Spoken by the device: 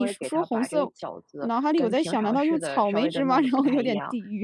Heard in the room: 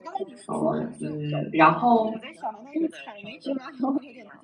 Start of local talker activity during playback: 0.4 s

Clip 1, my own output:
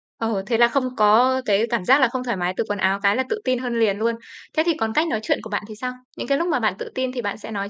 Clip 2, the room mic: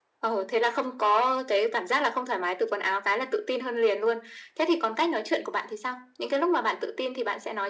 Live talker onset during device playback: none

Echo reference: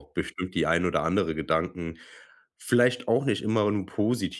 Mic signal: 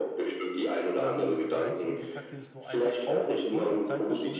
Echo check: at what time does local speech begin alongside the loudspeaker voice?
1.0 s

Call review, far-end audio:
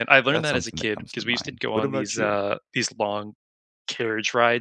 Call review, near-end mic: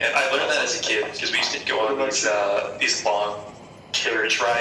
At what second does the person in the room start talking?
none

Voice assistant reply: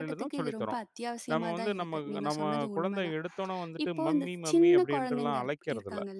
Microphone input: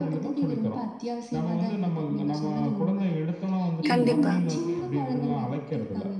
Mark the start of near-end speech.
3.9 s

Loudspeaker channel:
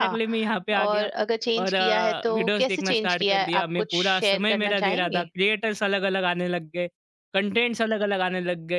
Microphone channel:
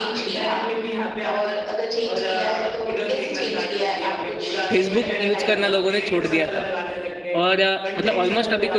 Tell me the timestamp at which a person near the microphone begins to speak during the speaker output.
4.7 s

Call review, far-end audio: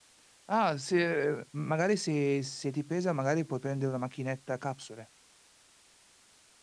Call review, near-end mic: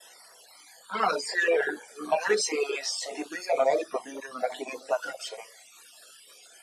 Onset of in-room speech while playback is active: none

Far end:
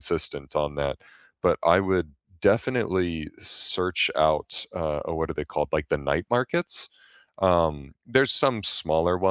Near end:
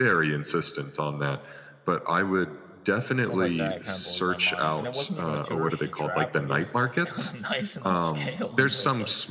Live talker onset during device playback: 3.2 s

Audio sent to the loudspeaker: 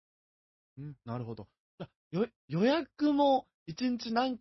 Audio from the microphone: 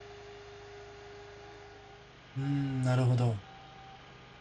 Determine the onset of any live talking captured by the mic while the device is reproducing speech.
2.4 s

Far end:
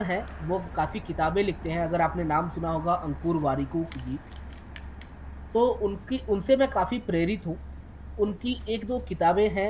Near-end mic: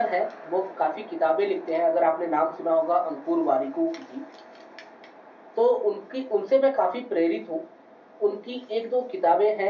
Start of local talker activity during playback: none

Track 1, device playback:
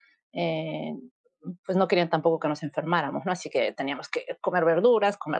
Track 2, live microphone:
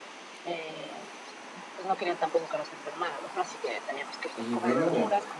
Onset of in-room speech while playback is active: 4.4 s

